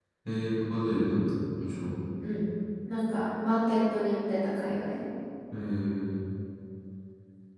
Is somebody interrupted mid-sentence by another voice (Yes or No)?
No